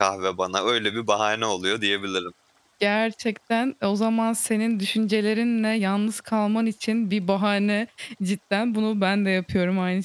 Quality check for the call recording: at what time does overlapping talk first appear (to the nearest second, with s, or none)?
none